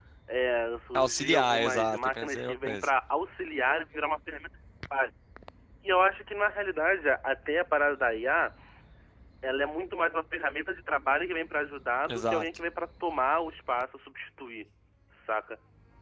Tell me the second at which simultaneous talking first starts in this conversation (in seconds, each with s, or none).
1.0 s